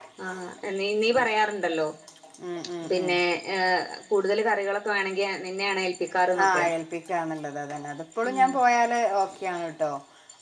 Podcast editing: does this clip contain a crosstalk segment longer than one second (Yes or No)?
No